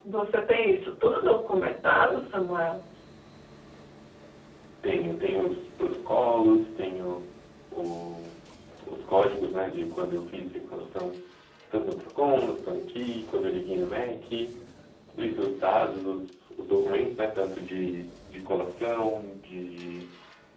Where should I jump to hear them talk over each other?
none

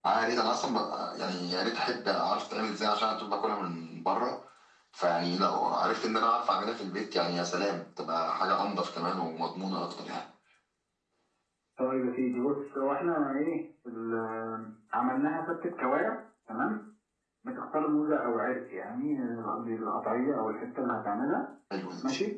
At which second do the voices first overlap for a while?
none

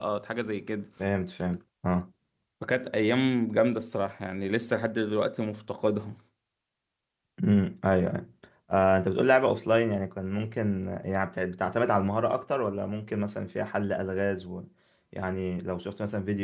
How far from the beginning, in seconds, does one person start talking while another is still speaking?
none

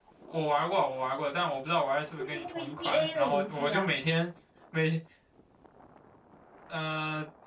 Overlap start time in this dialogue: 2.2 s

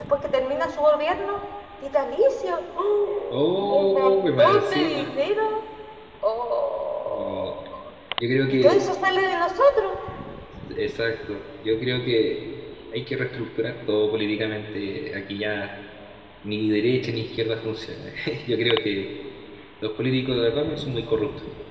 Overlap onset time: 3.3 s

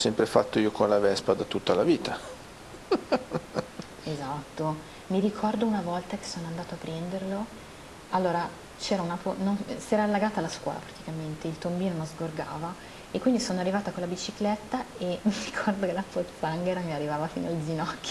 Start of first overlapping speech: none

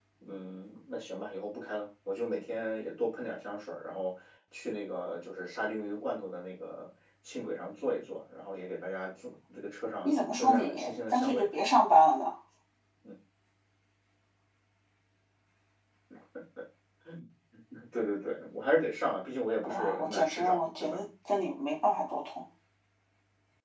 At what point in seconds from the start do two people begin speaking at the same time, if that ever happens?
10.0 s

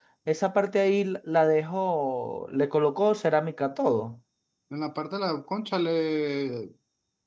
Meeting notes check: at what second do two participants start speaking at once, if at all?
none

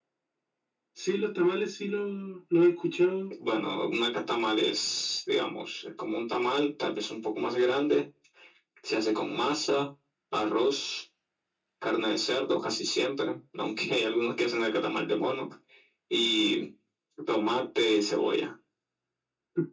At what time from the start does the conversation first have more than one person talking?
none

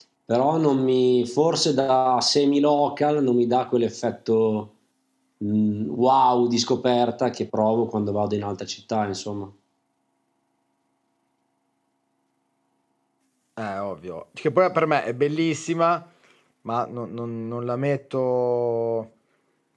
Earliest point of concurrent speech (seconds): none

